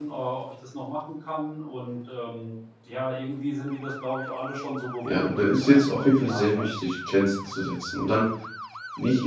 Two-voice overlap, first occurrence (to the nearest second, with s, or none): 5 s